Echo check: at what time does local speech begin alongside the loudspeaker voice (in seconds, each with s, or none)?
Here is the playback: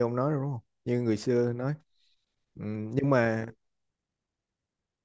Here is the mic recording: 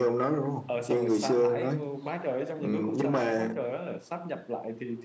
0.7 s